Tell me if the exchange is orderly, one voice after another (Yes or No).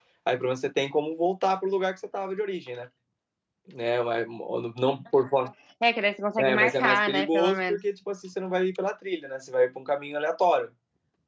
No